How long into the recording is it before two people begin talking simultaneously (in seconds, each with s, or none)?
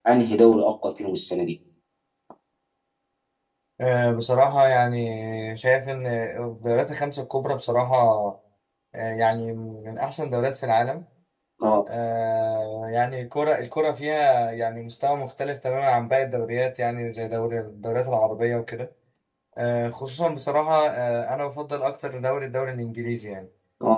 none